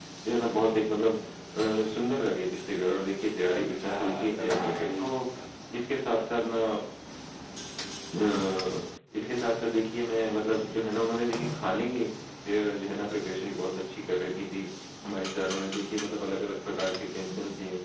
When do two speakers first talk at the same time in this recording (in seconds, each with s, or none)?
3.5 s